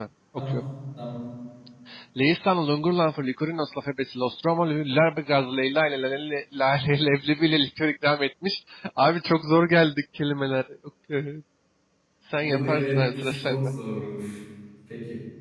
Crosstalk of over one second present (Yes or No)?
Yes